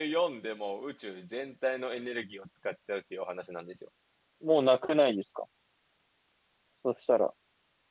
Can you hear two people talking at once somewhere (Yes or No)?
No